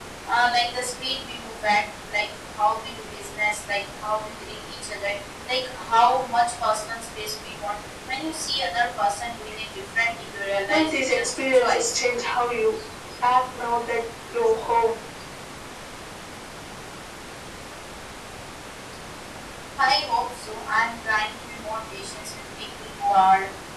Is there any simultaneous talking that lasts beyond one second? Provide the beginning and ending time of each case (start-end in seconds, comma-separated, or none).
10.7-12.0